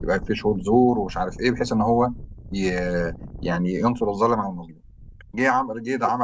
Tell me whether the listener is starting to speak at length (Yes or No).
No